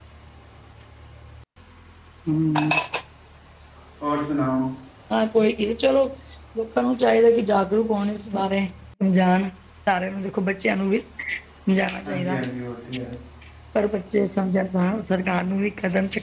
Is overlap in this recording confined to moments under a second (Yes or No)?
Yes